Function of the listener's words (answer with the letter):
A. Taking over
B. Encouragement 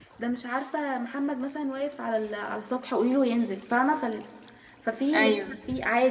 B